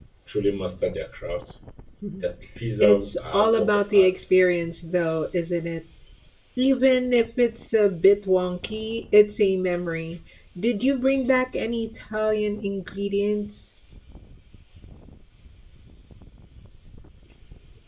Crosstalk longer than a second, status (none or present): present